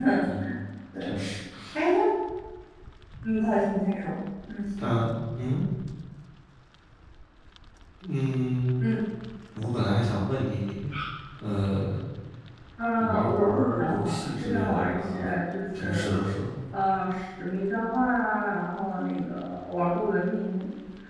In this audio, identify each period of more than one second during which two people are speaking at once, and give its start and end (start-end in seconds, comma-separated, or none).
13.0-15.2